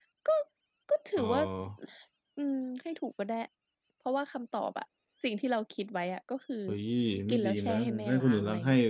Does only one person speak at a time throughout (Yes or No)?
No